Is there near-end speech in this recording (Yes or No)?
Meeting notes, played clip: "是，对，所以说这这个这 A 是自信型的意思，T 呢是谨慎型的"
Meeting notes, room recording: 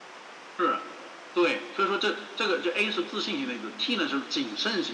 No